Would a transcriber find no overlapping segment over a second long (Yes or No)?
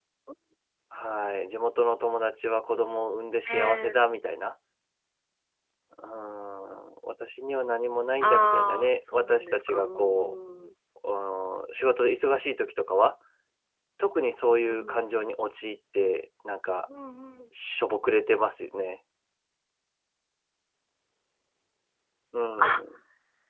No